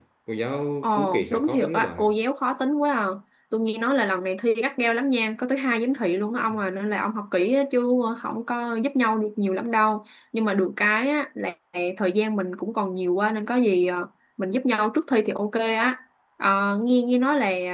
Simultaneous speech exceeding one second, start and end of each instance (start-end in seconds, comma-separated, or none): 0.8-2.1